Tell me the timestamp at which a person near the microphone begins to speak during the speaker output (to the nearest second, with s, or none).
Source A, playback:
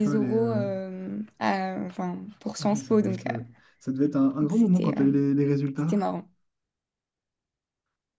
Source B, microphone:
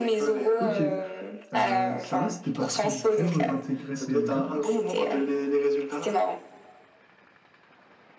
1 s